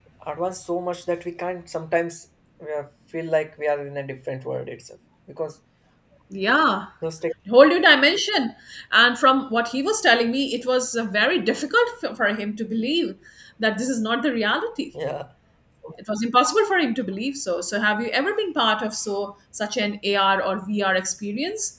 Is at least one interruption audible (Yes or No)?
No